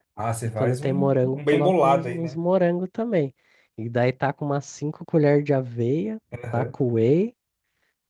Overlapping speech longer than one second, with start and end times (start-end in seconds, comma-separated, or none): 0.6-2.4